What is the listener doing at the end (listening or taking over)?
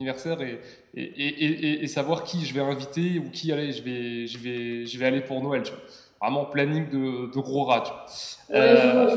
taking over